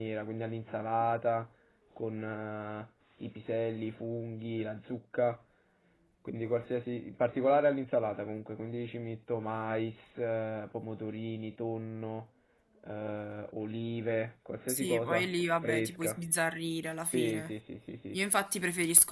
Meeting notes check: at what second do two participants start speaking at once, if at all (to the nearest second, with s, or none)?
15 s